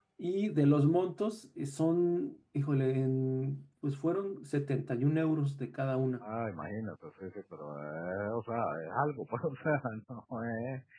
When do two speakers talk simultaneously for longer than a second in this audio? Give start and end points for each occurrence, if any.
none

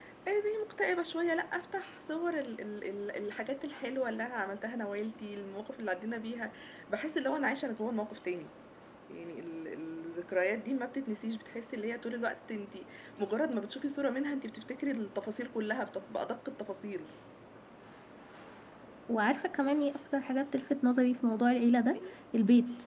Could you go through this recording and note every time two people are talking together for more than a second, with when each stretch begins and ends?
none

